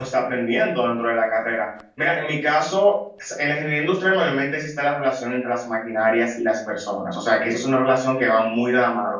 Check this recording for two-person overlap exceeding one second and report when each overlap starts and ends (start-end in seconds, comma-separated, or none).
none